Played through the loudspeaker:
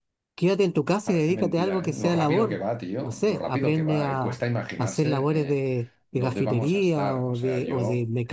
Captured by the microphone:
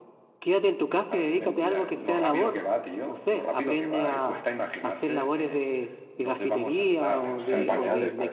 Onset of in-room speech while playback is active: 7.2 s

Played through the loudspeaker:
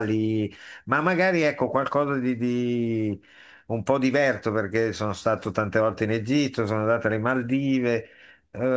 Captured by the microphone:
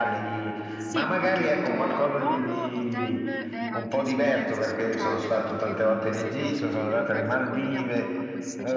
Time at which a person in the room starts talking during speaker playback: 0.7 s

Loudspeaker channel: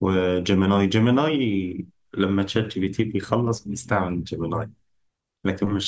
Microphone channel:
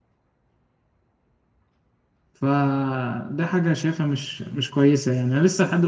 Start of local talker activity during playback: 2.3 s

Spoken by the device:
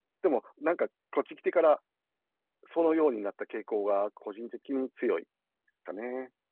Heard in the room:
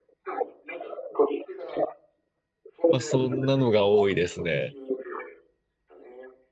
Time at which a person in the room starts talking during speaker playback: 2.9 s

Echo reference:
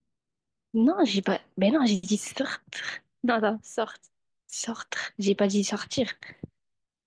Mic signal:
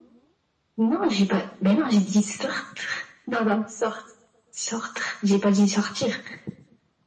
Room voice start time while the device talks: none

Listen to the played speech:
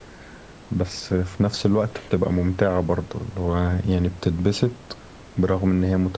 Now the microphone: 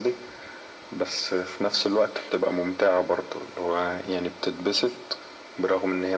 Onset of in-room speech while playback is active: none

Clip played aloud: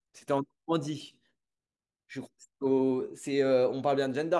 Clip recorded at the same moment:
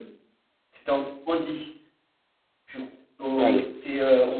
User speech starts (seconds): 3.3 s

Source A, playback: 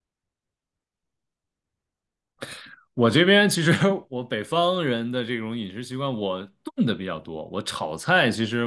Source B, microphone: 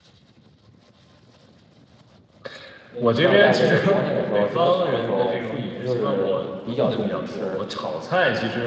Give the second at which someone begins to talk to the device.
2.9 s

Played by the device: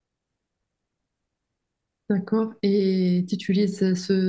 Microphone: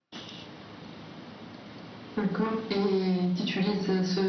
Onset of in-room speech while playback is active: none

